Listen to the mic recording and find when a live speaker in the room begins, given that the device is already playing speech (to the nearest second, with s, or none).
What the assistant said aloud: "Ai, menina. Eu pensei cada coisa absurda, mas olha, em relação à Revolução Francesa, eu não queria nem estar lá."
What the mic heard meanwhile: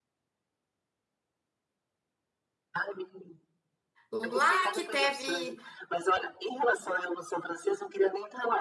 4 s